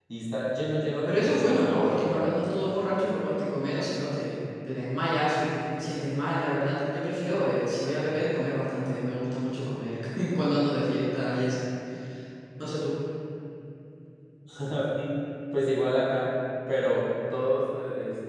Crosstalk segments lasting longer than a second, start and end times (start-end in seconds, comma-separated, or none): 1.1-2.3